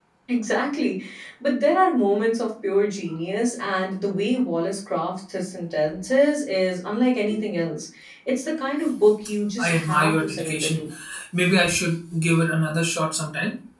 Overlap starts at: 10 s

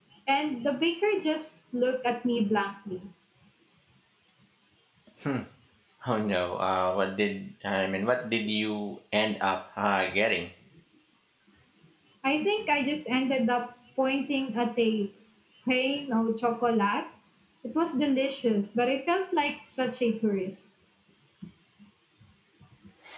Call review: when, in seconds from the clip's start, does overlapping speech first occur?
none

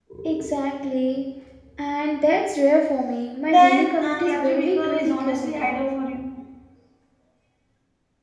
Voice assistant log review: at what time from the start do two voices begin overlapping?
3 s

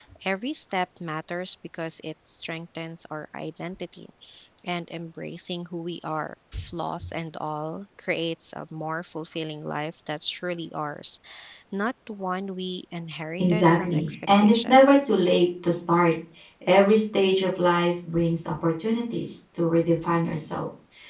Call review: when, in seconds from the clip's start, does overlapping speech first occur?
13 s

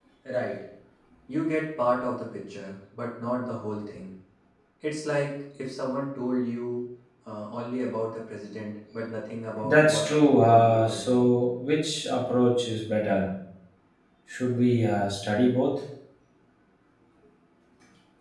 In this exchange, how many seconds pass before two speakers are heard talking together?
10 s

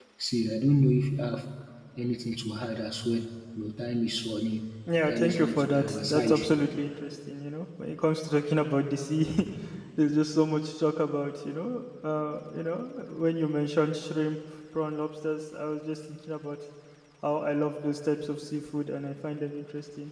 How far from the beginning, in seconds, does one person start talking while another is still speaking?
5 s

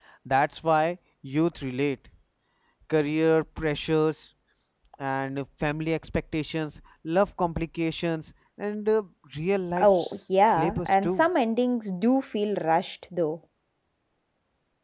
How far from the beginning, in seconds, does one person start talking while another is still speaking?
10 s

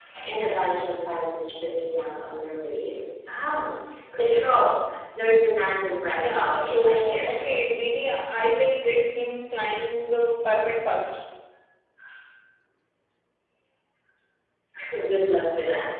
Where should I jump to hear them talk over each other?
6 s

